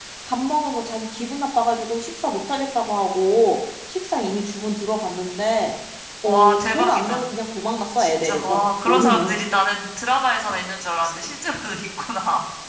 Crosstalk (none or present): present